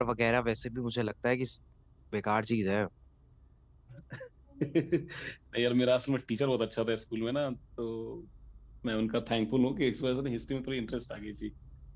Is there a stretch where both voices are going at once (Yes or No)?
No